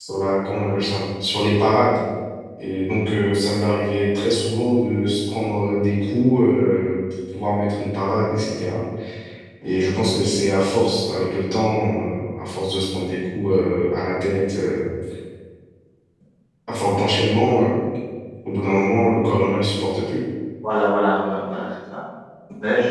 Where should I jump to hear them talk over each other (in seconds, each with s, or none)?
none